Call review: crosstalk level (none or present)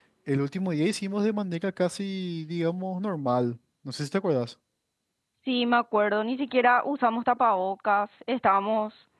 none